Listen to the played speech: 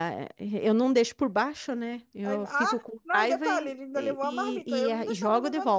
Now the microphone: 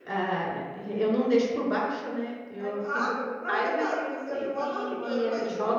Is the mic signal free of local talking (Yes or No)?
No